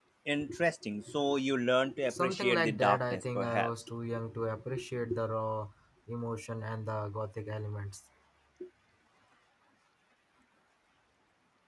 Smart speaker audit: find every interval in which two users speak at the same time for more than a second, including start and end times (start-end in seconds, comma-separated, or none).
2.1-3.7